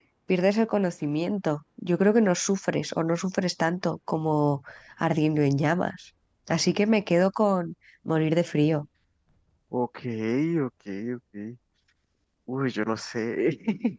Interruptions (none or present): none